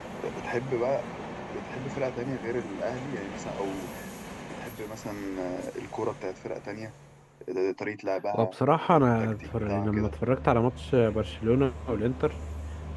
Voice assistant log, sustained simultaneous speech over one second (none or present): present